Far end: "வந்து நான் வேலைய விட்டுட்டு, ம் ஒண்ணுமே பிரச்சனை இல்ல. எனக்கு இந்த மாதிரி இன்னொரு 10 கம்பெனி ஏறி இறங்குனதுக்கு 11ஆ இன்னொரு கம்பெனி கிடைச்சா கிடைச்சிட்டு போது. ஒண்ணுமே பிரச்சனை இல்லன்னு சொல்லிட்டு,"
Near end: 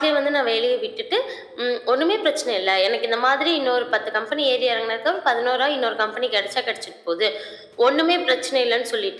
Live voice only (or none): none